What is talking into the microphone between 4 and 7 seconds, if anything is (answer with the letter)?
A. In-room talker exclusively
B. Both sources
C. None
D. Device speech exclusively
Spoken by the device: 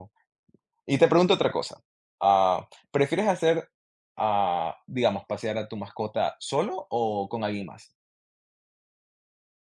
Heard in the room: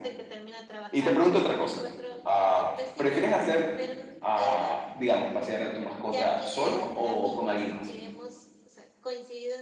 B